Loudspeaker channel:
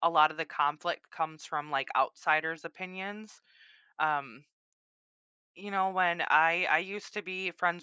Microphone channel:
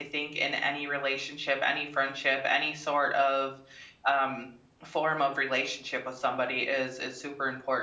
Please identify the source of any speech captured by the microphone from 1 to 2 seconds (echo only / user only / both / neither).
user only